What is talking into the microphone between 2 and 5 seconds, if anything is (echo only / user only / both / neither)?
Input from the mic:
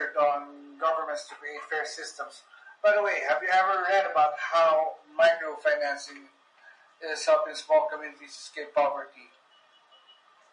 echo only